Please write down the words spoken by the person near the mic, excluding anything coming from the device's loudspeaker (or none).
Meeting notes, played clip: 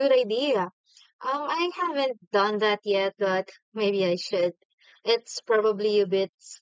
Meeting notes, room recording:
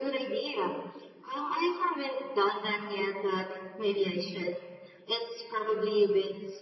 none